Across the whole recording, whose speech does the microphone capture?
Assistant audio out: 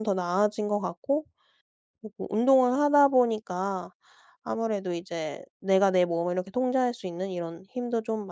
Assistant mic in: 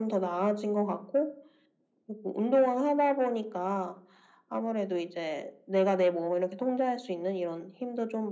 echo only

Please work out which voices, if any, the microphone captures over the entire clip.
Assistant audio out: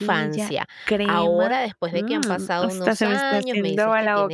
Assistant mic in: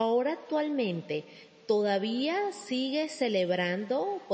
user only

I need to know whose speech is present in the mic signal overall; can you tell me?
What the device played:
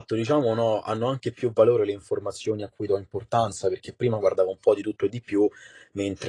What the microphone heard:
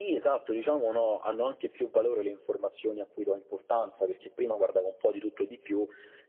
echo only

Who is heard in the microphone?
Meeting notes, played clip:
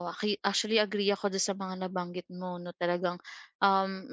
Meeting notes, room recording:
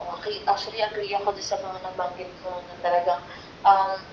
echo only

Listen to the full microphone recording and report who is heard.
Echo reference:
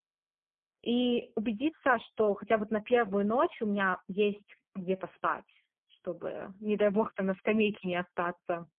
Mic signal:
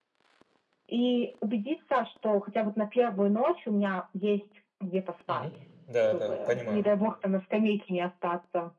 both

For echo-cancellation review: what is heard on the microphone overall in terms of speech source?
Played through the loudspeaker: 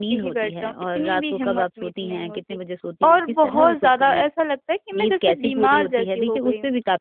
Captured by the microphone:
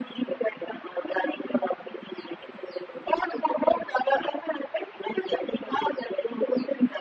echo only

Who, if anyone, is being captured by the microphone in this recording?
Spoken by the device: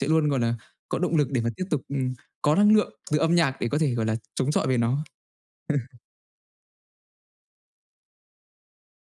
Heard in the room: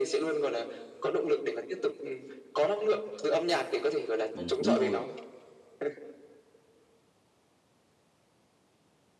both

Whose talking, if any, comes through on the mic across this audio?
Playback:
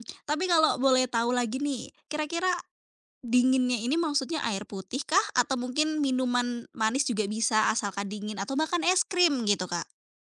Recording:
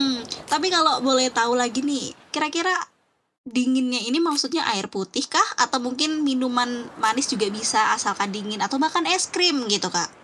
echo only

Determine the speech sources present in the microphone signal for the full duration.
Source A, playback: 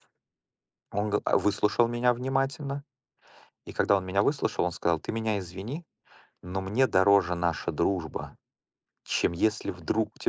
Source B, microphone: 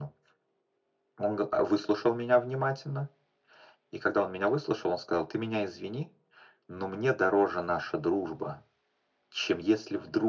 echo only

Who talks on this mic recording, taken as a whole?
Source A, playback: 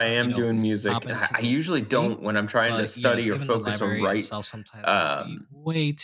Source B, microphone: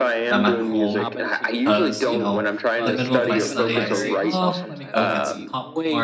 both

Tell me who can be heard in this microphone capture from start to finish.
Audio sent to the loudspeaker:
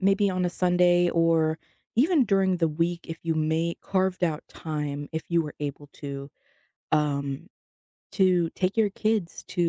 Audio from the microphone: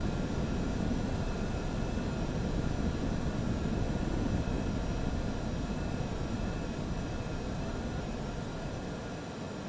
neither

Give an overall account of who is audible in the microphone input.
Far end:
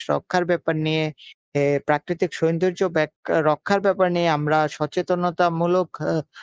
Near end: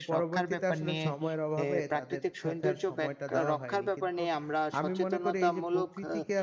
both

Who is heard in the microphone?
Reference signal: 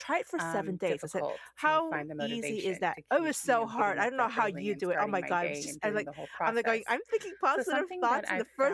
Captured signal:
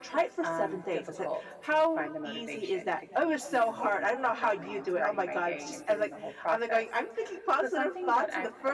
echo only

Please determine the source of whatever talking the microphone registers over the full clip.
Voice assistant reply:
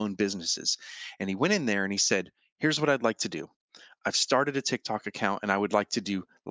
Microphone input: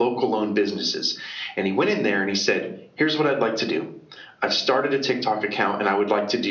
echo only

